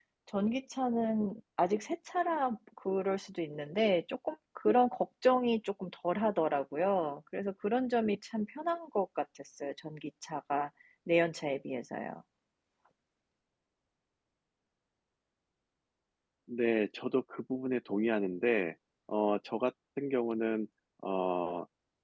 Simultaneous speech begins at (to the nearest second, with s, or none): none